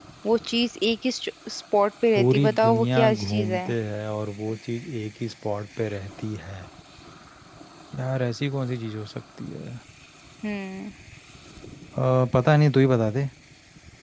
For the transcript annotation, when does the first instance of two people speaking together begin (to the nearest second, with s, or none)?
2 s